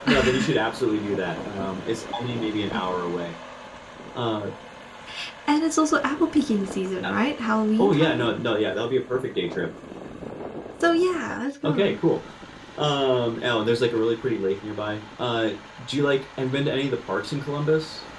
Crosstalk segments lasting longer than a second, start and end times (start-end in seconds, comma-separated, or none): none